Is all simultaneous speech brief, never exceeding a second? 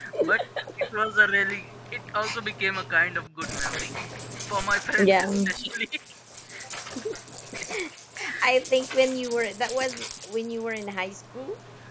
Yes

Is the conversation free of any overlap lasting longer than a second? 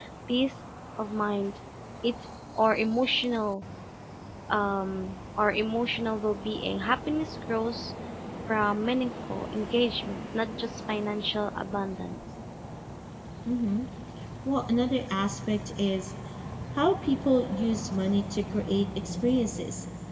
Yes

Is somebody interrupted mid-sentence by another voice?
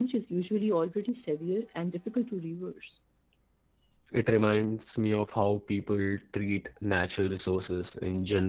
No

